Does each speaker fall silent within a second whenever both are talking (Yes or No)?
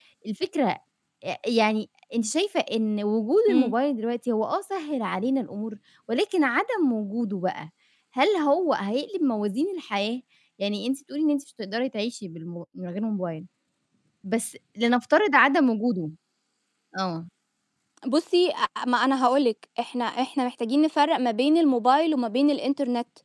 Yes